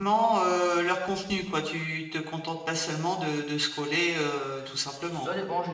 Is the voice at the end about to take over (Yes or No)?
Yes